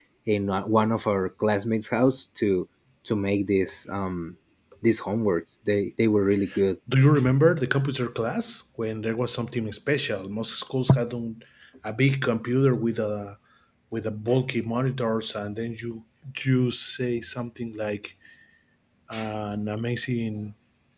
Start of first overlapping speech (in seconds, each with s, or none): none